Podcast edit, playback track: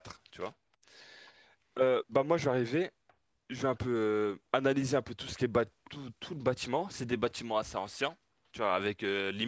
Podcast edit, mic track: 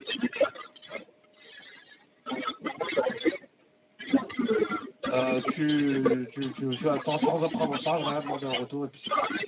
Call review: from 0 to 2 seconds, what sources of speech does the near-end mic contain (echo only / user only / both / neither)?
echo only